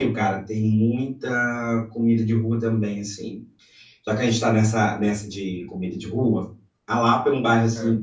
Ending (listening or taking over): listening